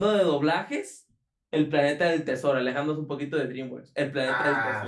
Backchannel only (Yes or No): No